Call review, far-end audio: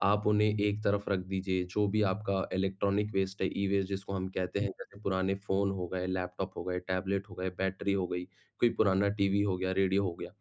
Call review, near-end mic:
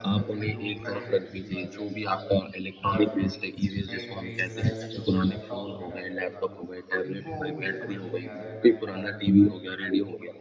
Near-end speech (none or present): present